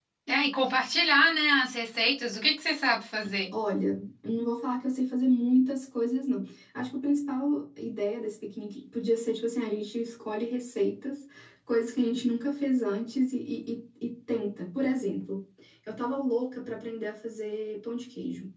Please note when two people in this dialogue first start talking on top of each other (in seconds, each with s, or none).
none